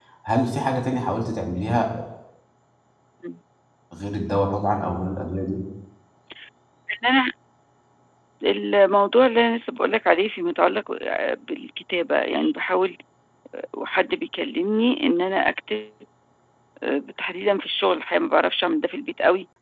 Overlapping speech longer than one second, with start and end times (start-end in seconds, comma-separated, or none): none